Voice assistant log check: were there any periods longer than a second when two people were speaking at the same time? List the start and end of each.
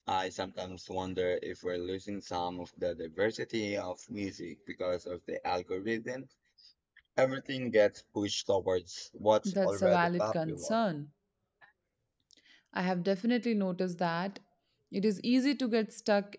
9.4-10.8

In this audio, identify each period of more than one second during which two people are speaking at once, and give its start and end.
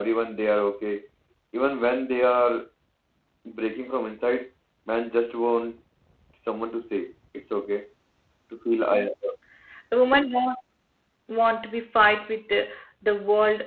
none

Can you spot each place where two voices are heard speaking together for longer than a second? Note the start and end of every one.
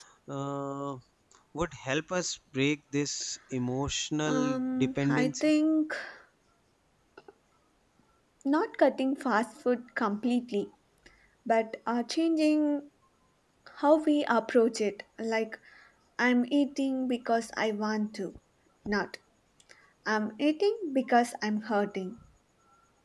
4.3-5.5

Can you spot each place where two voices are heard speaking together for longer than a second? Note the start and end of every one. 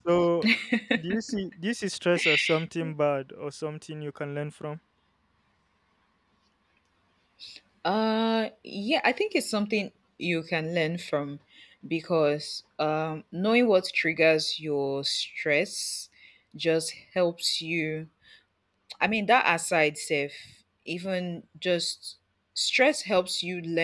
none

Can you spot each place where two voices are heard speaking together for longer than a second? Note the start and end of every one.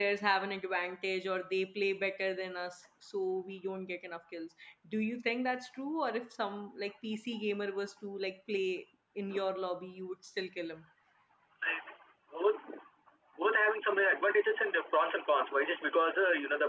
none

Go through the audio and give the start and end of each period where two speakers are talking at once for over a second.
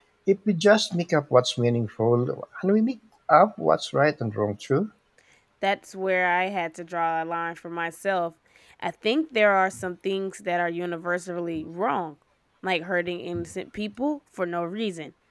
none

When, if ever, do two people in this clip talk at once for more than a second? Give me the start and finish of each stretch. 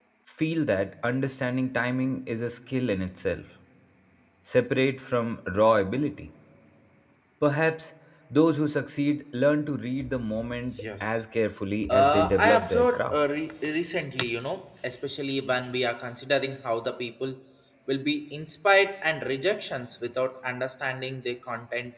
11.9-13.2

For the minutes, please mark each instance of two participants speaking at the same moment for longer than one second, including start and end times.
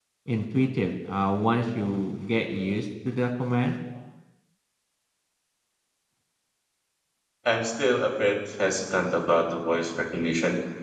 none

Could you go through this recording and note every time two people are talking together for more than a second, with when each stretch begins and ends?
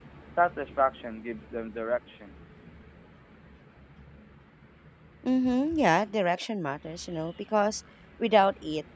none

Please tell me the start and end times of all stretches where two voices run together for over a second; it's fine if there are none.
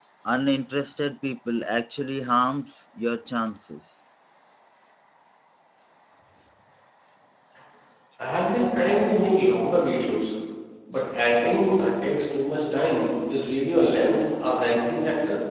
none

